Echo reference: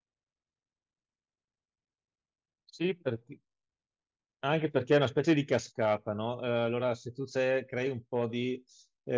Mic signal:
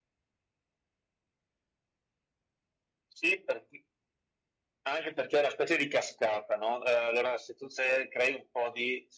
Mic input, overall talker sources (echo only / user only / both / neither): echo only